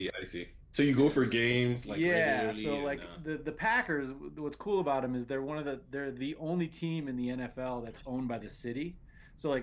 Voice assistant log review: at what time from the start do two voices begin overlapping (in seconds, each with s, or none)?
1.9 s